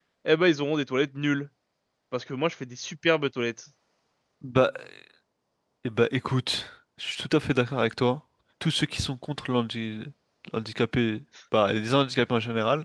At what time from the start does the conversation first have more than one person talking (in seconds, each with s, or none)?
none